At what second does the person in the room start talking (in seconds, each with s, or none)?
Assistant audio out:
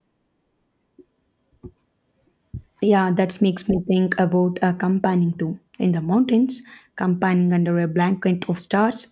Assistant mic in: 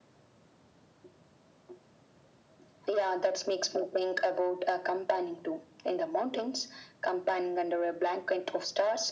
none